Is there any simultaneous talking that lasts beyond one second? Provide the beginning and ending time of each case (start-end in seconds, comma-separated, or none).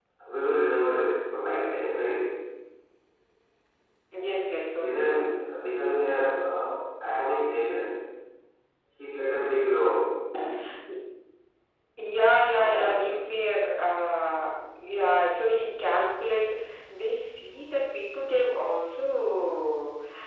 none